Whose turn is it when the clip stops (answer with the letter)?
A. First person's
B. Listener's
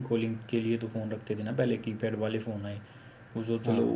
A